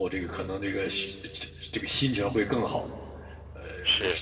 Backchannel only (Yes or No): Yes